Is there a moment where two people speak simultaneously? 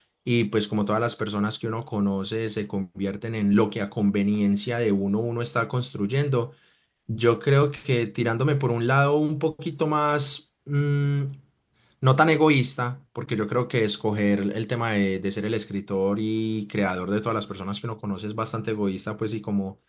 No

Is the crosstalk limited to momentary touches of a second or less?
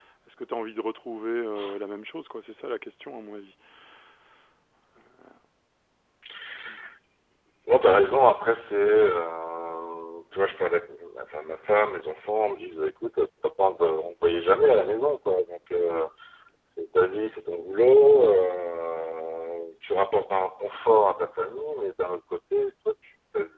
Yes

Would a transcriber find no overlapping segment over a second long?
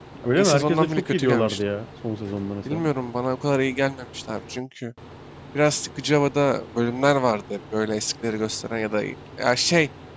No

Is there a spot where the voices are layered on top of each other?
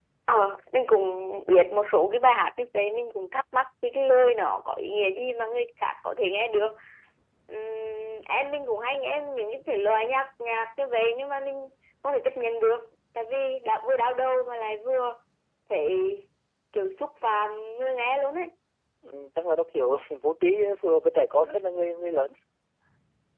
No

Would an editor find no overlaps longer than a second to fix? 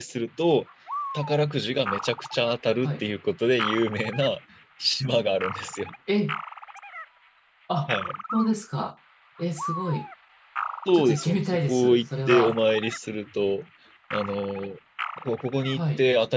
No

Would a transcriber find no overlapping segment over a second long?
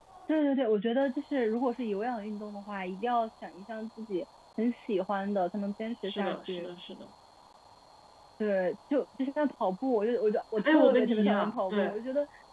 No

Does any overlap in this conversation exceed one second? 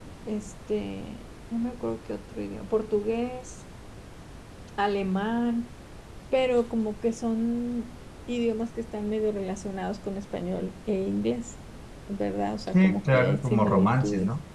Yes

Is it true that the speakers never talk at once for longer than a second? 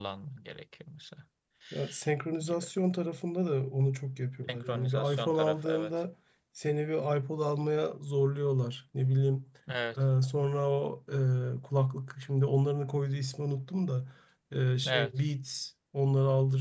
No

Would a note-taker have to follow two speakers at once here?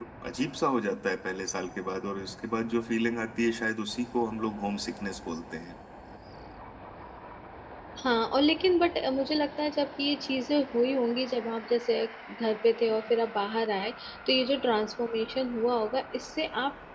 No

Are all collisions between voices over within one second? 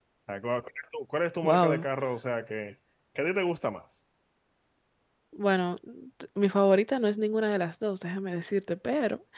Yes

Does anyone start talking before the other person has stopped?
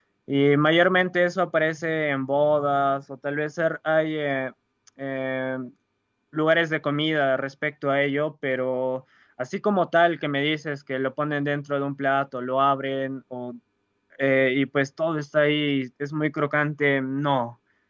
No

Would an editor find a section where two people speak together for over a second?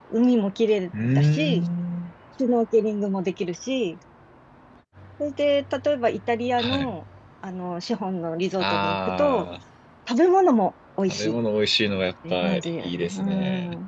Yes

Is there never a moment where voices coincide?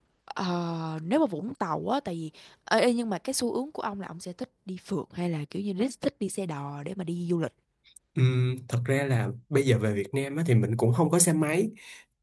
Yes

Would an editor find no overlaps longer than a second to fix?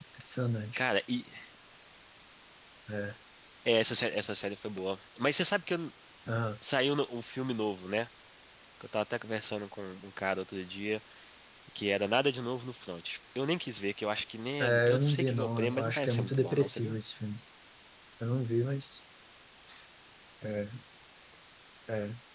No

